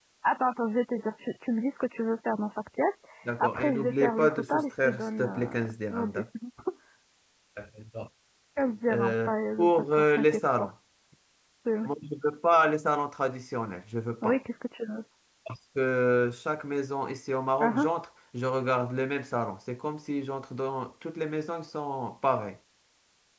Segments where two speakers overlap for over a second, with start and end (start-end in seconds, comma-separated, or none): 3.4-5.5, 8.9-10.5